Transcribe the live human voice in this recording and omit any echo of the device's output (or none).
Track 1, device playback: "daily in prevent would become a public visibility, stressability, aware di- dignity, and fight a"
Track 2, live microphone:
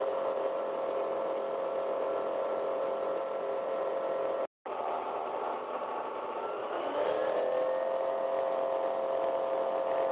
none